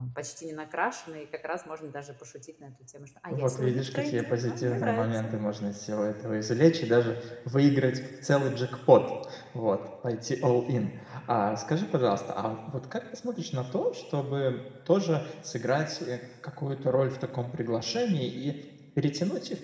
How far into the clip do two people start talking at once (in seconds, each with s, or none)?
3.3 s